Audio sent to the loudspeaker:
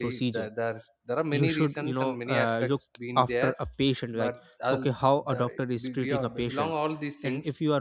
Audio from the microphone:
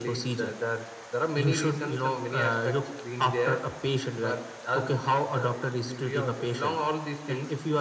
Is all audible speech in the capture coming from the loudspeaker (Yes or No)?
Yes